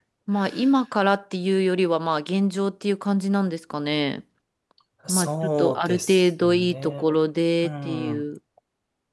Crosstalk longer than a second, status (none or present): present